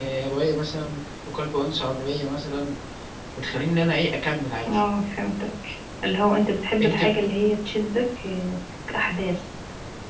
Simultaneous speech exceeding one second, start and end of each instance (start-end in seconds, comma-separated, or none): none